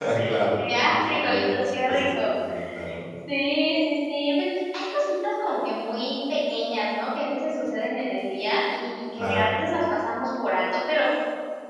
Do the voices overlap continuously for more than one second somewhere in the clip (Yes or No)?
Yes